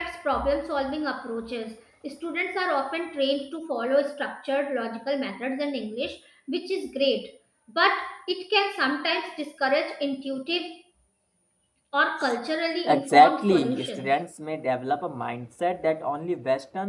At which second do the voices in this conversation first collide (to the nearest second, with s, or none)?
13 s